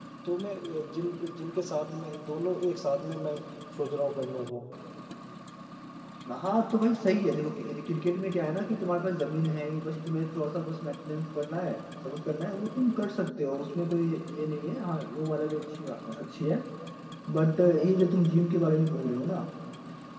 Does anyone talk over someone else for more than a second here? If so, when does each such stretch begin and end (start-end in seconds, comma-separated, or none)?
none